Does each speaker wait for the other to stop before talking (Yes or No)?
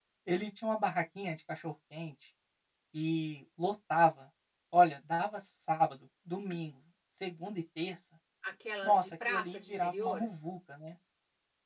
No